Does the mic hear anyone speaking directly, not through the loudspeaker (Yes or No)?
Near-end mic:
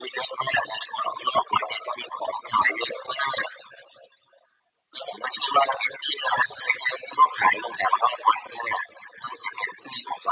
No